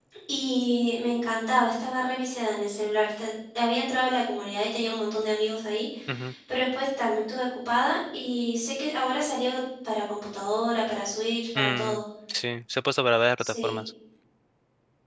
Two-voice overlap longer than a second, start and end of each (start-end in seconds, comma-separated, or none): none